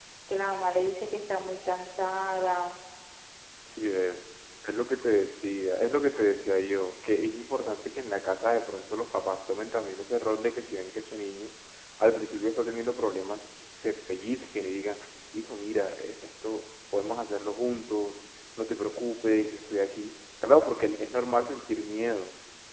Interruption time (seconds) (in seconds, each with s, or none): none